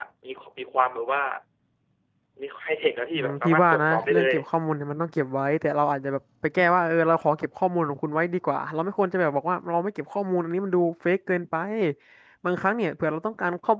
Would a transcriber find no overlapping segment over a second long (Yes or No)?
No